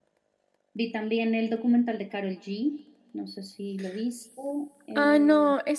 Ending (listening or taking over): taking over